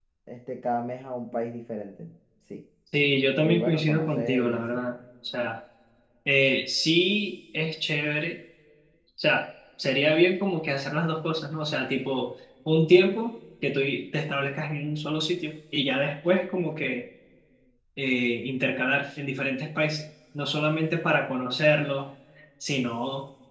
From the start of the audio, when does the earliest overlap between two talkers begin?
3.4 s

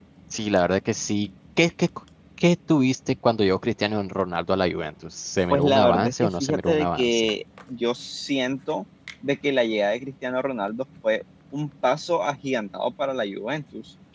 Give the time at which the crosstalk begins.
5.5 s

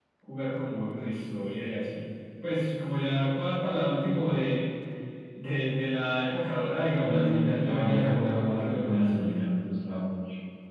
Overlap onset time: 7.0 s

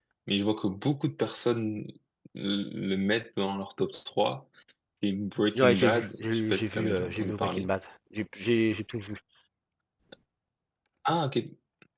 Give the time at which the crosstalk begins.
5.6 s

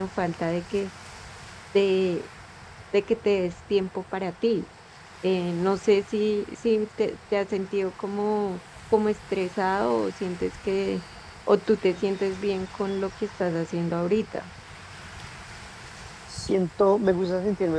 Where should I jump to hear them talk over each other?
none

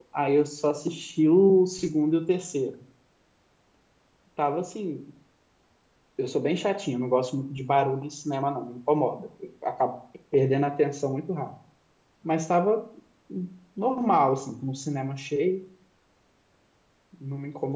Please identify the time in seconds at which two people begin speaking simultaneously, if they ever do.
none

